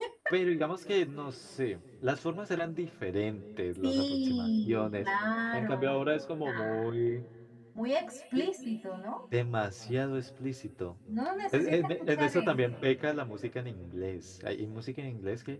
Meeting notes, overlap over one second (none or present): present